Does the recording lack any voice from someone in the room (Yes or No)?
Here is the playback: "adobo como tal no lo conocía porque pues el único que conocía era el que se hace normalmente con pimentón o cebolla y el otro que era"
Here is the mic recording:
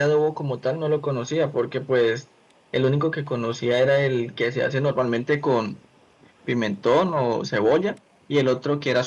Yes